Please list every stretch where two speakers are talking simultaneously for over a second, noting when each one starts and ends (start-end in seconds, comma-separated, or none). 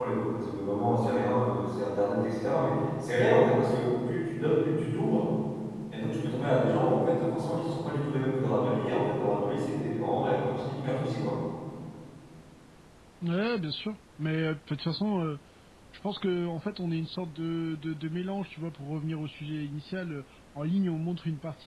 none